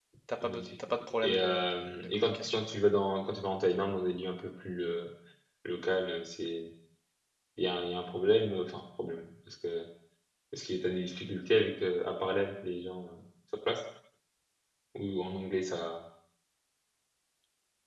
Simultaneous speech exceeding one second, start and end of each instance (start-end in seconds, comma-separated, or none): 1.2-2.7